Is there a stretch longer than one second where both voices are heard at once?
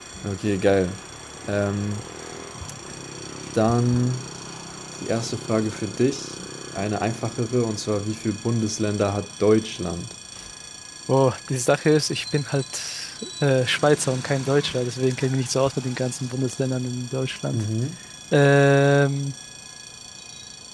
No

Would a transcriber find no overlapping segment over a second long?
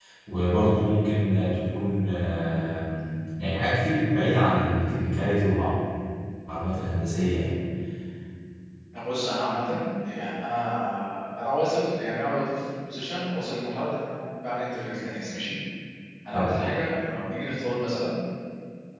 Yes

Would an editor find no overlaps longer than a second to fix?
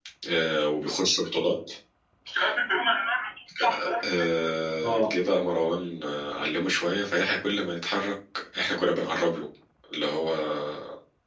Yes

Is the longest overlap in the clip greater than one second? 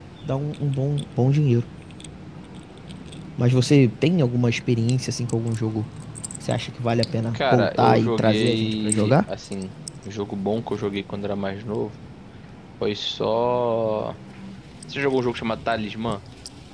Yes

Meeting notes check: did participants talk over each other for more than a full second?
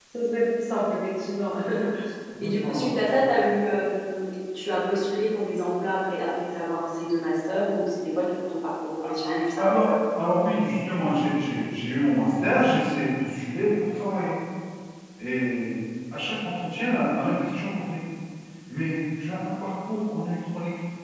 No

